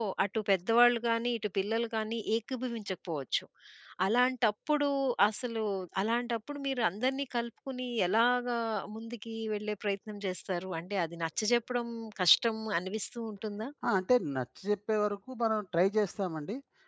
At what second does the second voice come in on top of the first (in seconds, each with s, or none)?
none